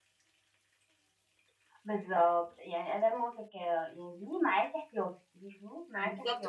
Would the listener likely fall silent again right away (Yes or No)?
No